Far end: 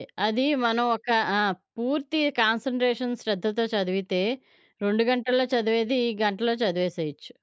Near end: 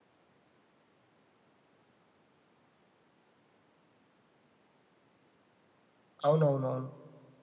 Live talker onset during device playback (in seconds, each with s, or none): 6.3 s